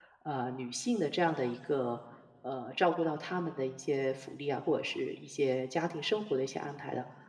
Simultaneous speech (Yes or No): No